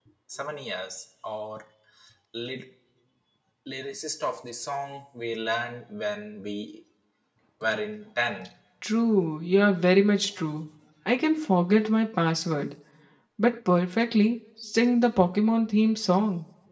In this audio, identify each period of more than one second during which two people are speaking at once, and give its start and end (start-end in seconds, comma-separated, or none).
none